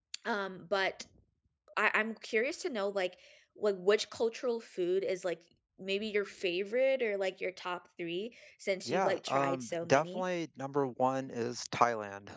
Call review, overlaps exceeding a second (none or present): present